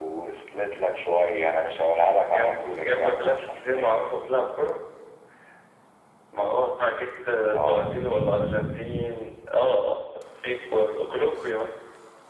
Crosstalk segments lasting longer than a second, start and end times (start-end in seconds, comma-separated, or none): 2.3-3.9